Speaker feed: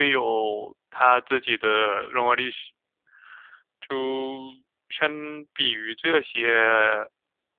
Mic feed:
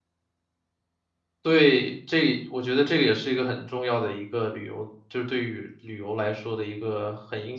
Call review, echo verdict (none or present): none